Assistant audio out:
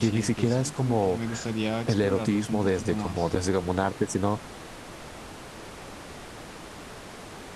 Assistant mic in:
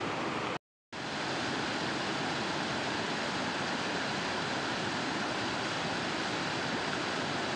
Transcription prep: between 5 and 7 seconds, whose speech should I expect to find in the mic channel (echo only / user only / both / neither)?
neither